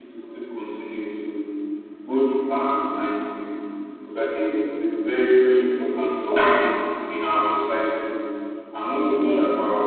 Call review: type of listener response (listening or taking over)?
listening